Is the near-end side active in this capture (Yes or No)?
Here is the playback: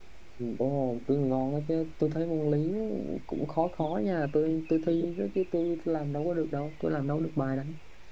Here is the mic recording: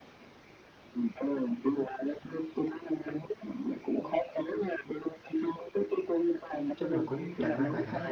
Yes